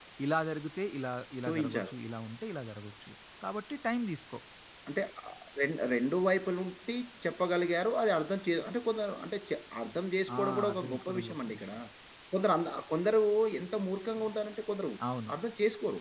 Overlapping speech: Yes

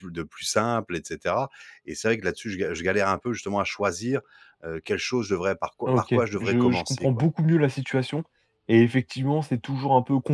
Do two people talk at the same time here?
Yes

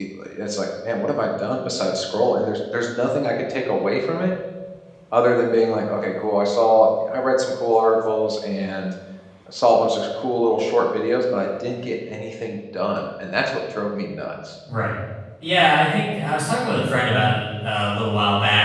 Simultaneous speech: No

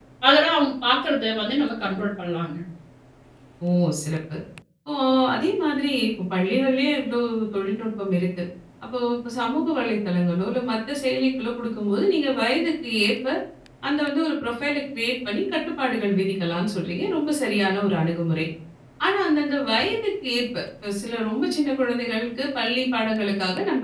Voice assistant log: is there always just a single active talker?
Yes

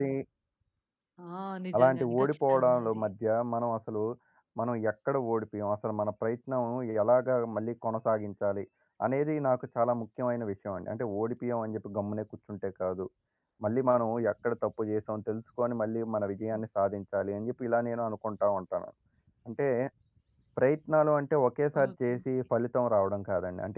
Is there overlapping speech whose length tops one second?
Yes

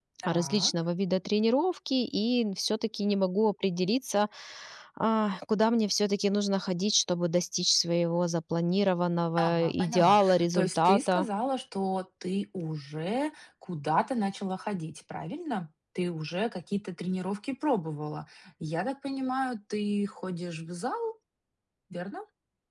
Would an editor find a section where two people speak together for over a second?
Yes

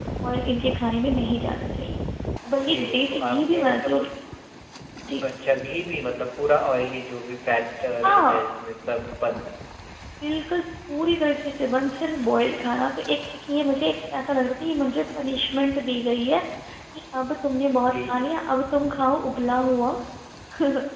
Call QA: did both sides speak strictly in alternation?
No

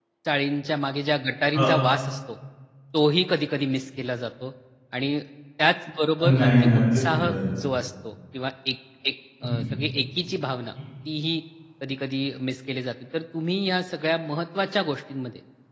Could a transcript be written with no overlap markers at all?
No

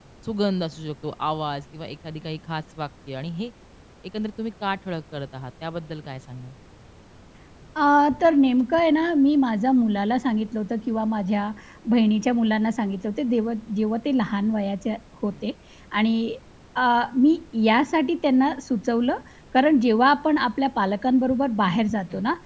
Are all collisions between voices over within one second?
Yes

